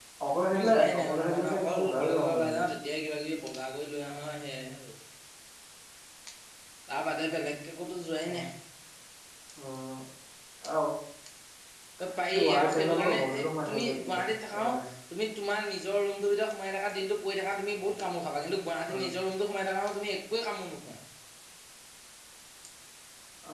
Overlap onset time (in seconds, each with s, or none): 0.6 s